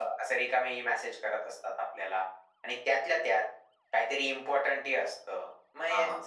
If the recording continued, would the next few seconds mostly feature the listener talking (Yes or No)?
No